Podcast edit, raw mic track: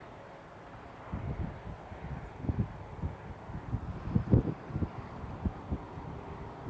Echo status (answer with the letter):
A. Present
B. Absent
B